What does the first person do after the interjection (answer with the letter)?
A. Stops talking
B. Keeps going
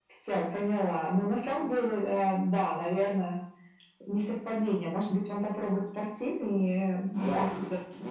A